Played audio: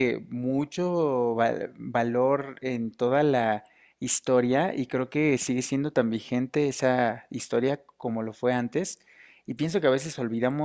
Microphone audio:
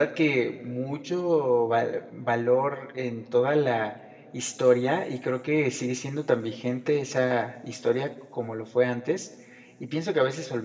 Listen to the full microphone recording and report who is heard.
echo only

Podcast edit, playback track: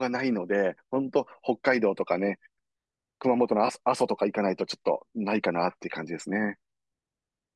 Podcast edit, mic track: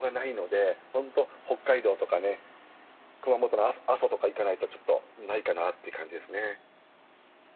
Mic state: echo only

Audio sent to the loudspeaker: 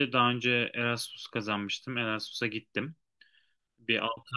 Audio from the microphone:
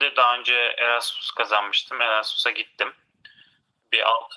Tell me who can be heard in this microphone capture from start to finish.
echo only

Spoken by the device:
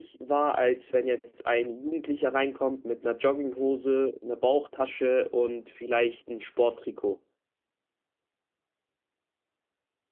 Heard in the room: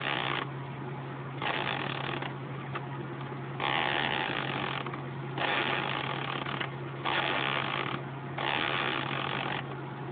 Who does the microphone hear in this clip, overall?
neither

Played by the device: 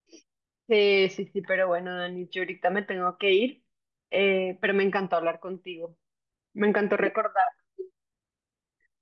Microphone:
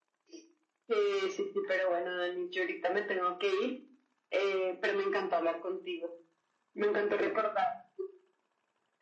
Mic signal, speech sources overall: echo only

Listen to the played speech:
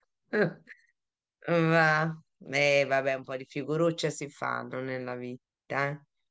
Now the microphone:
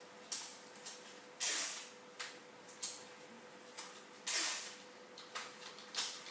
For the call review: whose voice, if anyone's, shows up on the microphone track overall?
neither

